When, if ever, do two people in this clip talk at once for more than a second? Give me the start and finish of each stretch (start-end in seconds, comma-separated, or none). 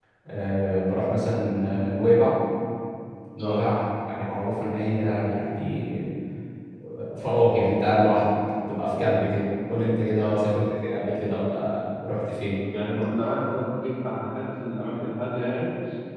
none